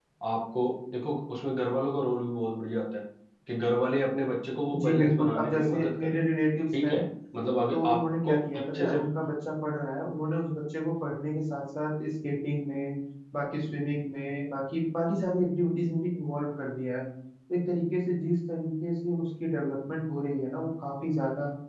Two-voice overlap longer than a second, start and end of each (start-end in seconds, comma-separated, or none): 4.8-6.2, 7.7-9.0